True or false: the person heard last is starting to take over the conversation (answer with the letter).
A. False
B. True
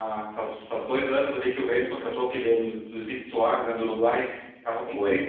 A